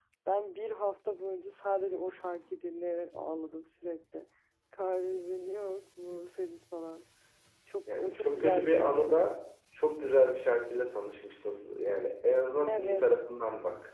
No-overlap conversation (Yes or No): No